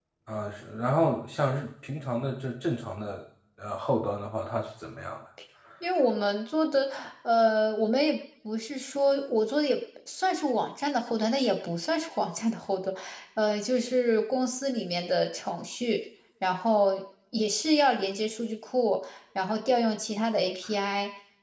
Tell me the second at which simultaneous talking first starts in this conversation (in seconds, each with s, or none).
none